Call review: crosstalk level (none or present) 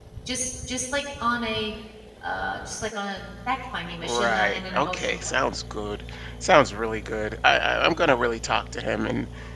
present